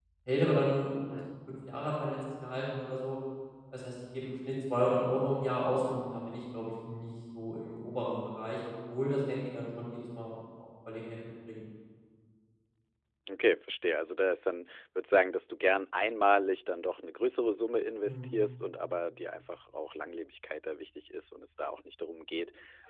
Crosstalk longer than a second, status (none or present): none